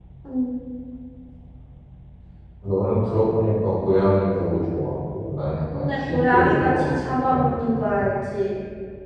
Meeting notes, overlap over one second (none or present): present